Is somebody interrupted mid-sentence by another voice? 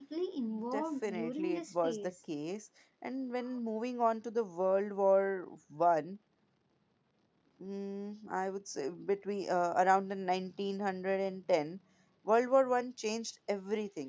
Yes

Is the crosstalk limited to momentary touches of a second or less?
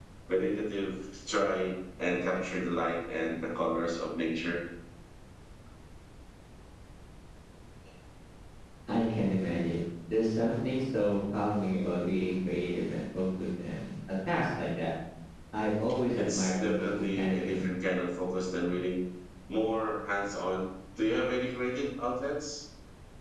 No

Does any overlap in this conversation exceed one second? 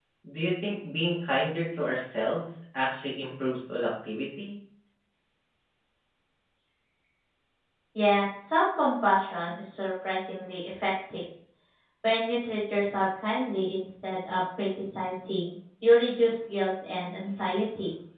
No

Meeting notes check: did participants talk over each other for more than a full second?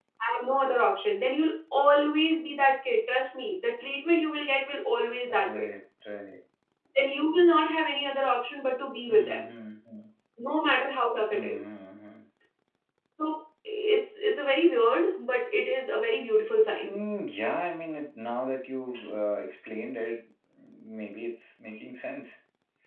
No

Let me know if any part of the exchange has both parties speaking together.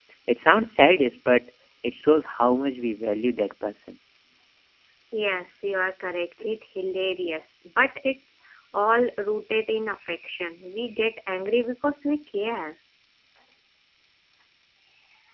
No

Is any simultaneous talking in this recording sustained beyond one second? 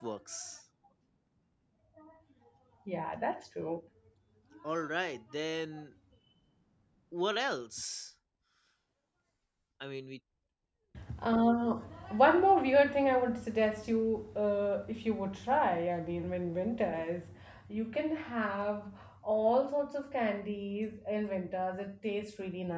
No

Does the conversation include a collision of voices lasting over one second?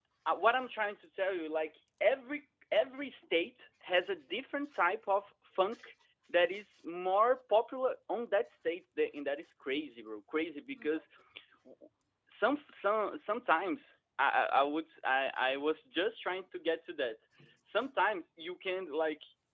No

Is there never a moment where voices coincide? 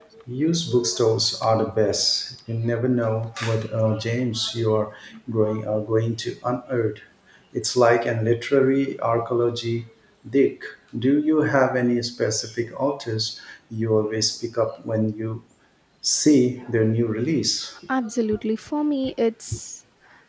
Yes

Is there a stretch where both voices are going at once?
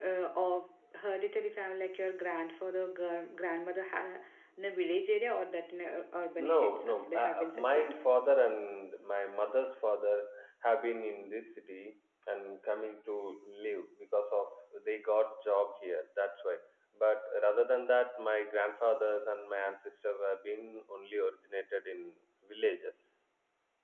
Yes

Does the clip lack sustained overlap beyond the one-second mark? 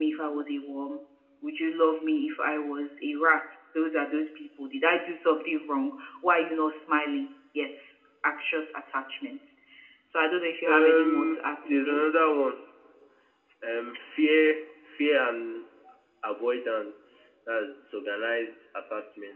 No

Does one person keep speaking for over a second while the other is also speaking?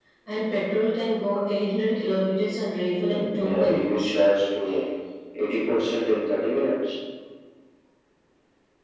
Yes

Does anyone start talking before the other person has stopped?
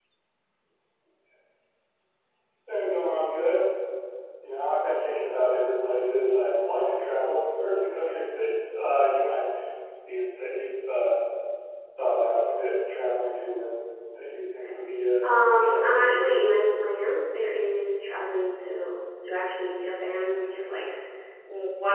Yes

